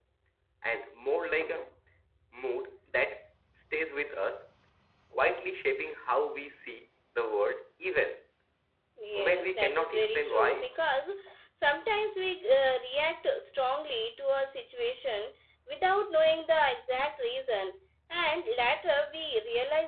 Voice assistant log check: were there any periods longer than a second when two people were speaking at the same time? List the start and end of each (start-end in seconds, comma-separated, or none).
9.2-10.7